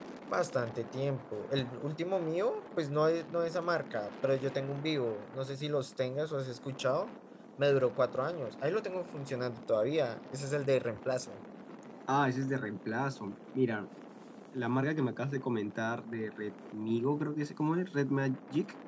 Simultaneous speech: No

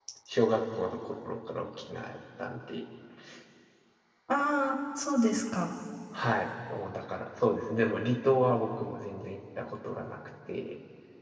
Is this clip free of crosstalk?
Yes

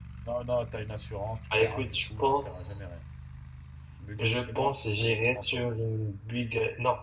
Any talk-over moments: Yes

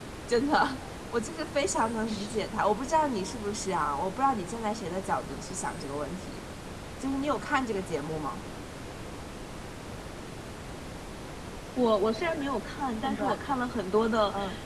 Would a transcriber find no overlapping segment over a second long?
Yes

